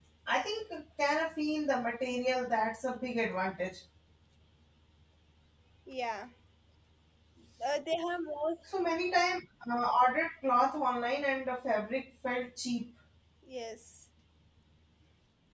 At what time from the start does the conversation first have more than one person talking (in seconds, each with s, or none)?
none